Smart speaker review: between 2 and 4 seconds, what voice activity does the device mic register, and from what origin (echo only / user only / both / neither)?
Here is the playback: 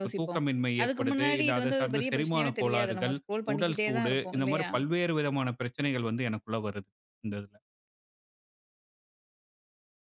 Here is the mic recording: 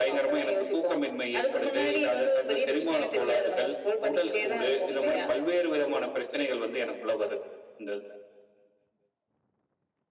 echo only